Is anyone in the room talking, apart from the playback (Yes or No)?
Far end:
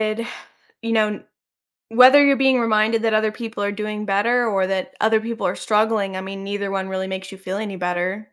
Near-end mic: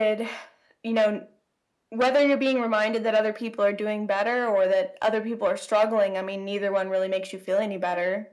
No